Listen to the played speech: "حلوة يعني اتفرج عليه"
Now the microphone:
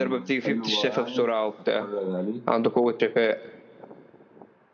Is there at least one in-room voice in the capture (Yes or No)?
Yes